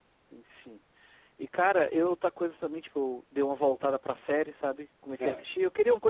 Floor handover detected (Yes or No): No